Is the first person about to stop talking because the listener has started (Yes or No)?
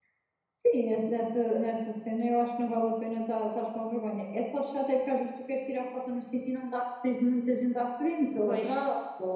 No